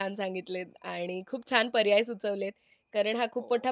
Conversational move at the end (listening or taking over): listening